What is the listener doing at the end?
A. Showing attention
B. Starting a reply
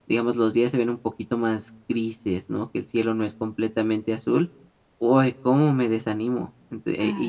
A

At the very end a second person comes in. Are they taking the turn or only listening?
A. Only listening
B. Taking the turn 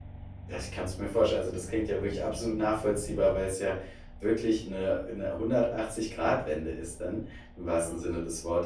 A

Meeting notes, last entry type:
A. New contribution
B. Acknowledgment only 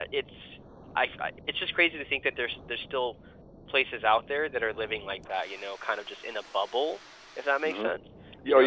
A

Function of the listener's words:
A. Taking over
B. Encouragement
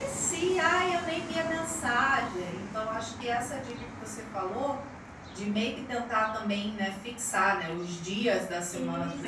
A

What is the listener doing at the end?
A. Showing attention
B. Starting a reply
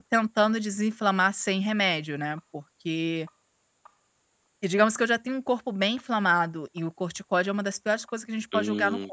B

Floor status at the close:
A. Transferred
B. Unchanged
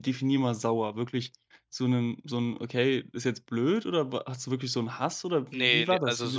A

